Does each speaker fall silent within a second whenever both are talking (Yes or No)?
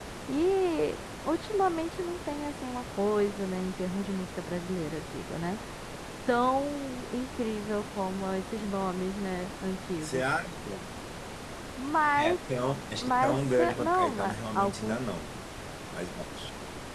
No